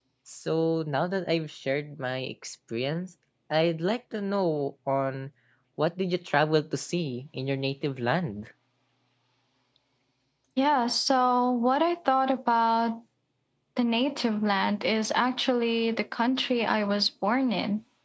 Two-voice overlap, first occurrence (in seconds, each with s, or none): none